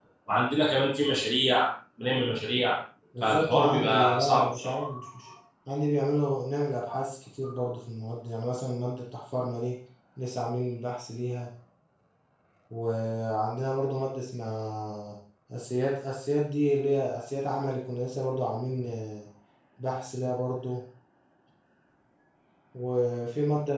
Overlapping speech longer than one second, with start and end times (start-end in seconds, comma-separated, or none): 3.2-5.0